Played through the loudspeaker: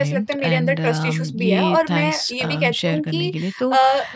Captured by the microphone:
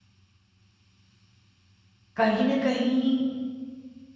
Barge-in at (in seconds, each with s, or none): 2.2 s